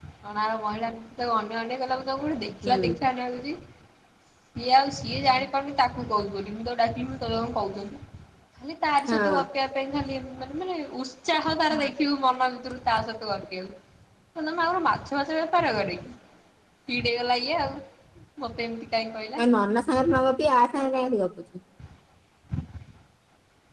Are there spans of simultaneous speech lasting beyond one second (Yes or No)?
No